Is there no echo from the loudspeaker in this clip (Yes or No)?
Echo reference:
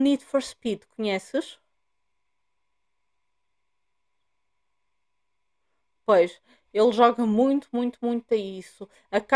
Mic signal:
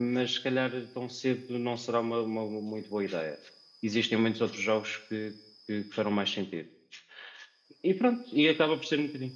Yes